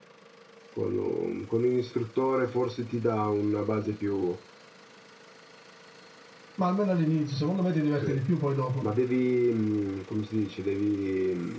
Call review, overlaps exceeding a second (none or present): none